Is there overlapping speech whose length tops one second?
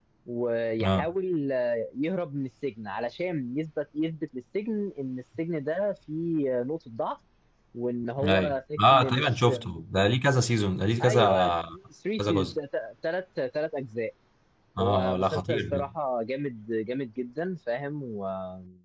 Yes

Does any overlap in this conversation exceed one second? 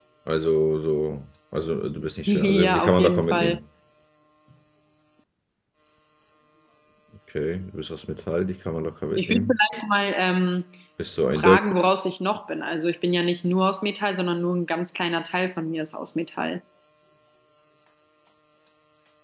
Yes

